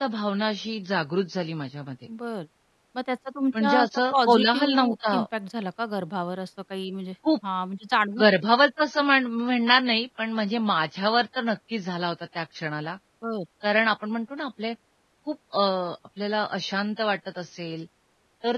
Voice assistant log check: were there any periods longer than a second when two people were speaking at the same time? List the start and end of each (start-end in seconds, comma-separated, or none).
3.6-5.2